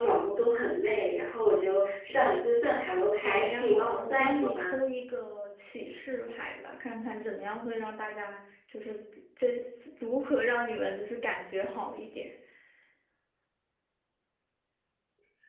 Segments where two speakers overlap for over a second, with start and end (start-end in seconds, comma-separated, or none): 3.2-4.7